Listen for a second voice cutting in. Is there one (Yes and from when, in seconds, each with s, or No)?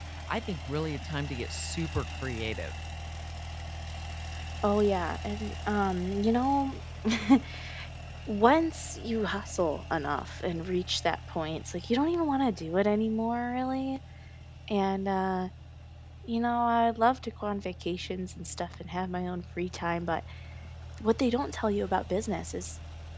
No